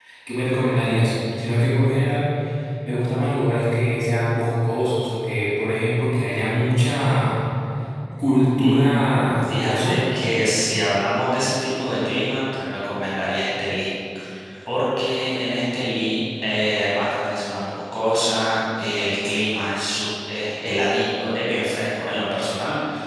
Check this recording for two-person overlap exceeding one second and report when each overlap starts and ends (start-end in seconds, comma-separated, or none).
8.6-10.0